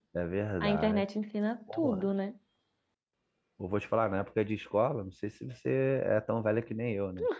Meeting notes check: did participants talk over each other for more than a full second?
No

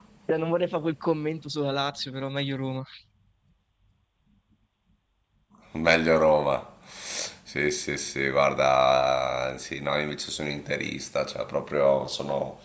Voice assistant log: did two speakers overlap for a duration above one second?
No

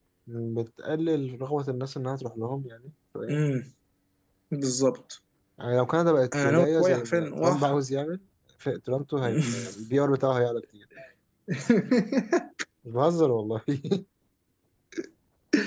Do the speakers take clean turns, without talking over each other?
No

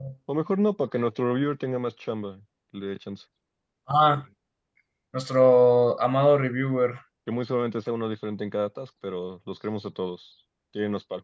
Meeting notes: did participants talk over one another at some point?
No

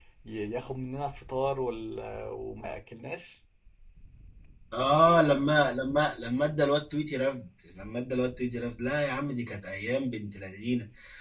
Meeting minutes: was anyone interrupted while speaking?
No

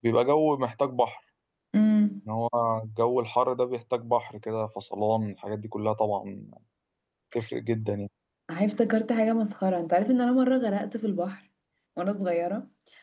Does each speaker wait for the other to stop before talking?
Yes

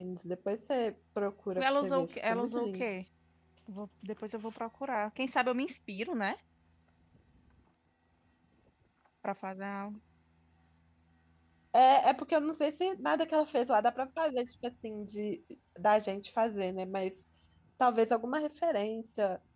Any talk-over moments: Yes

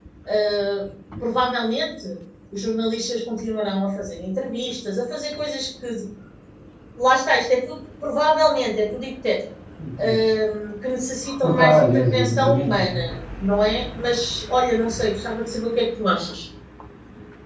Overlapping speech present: Yes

